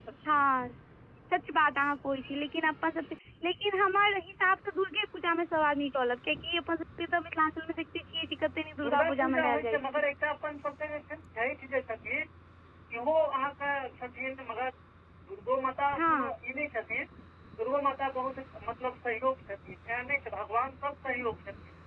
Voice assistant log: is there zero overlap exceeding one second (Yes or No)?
No